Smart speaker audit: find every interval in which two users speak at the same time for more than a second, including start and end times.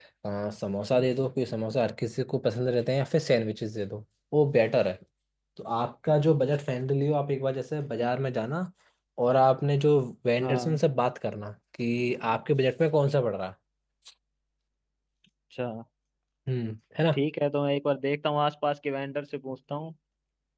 none

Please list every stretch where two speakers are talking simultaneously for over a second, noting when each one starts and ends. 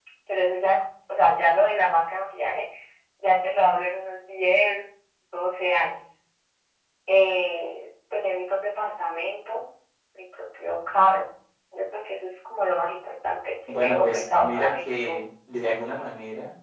13.7-15.2

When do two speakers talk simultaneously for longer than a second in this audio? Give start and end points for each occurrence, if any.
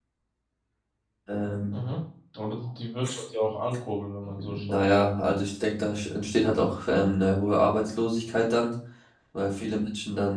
none

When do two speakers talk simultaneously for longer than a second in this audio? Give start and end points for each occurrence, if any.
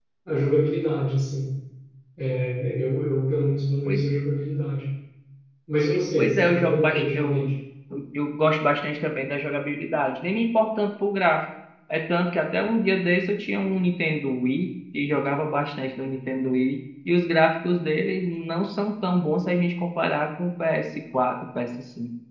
6.2-7.5

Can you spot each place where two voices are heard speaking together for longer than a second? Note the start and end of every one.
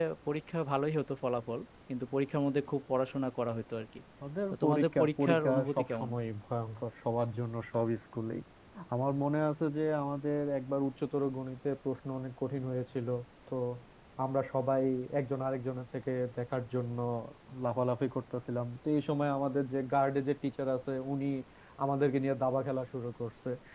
4.5-6.1

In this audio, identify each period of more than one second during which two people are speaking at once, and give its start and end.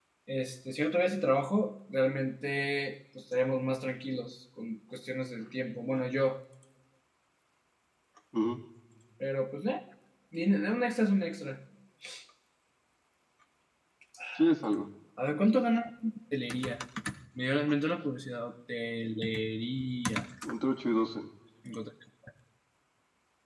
none

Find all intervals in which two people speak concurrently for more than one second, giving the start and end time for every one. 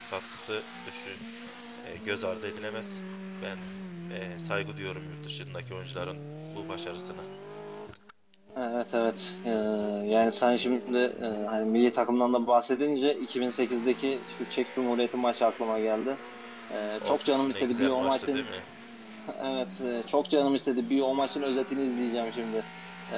17.0-18.4

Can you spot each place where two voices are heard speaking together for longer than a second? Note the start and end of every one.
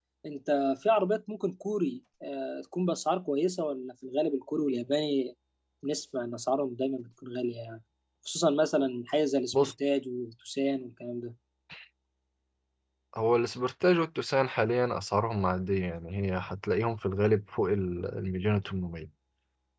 none

